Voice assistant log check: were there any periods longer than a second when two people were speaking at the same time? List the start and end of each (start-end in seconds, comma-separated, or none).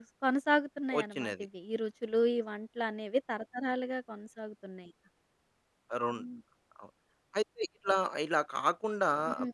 none